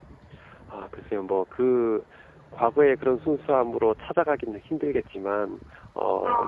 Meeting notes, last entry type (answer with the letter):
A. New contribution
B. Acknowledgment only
B